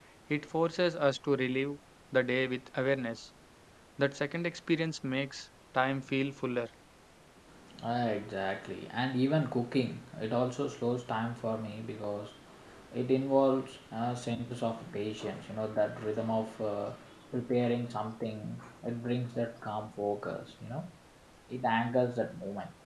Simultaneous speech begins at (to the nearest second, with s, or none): none